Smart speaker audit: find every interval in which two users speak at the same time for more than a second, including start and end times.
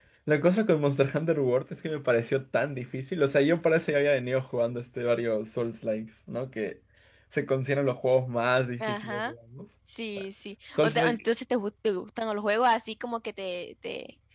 none

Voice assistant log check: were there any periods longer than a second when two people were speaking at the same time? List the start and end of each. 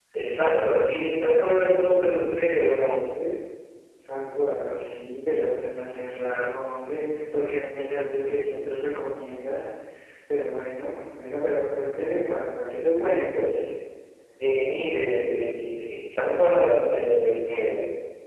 none

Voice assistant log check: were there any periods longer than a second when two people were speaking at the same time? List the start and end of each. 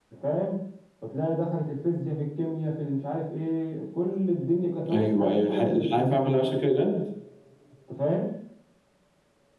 4.9-6.2

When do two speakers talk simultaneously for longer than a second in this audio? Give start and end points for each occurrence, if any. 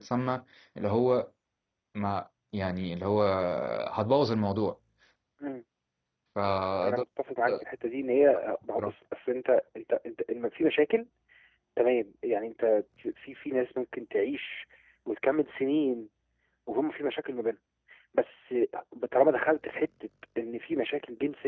none

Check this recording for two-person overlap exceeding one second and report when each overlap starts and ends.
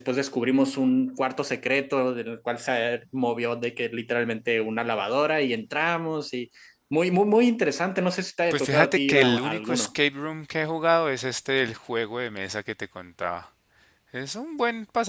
8.5-9.9

